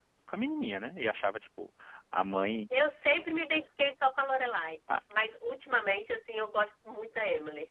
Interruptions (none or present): none